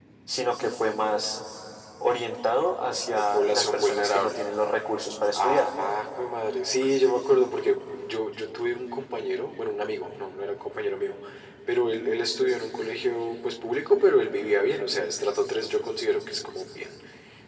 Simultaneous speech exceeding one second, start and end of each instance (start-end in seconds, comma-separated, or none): 3.1-4.5